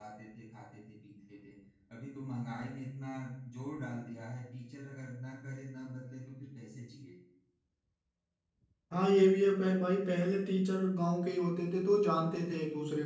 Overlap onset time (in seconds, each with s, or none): none